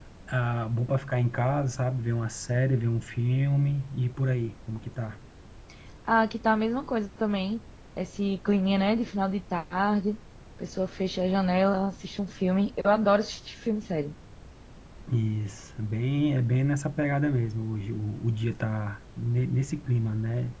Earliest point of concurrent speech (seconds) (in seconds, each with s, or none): none